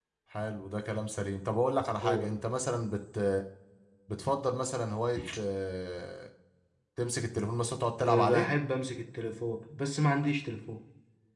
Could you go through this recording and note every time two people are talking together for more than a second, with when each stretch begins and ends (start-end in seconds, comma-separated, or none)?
none